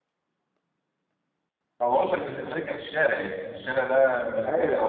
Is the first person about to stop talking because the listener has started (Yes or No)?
Yes